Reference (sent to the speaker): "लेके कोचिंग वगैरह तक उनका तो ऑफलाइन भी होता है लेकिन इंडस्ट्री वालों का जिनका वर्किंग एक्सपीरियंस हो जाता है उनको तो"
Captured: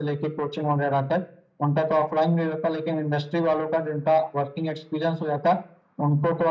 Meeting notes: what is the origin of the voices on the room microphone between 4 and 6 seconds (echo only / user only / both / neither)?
echo only